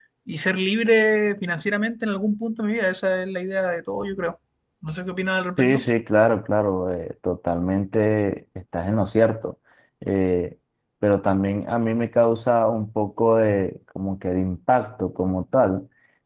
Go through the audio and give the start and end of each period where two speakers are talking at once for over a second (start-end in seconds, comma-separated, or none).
none